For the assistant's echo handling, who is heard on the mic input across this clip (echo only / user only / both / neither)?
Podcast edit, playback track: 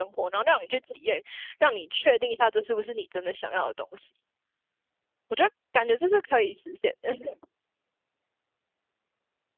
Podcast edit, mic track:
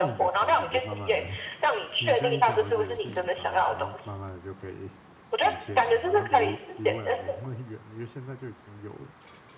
both